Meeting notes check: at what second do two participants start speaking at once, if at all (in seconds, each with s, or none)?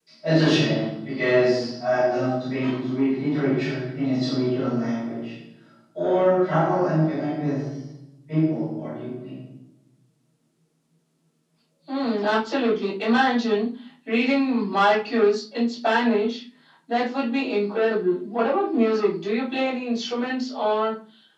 none